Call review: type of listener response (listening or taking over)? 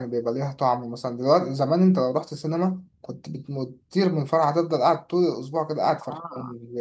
listening